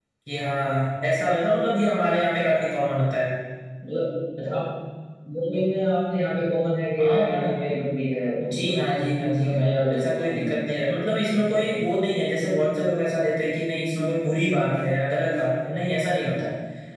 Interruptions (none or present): present